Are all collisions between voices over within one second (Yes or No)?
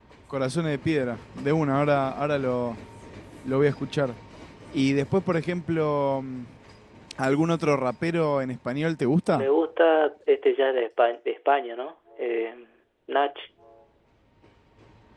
Yes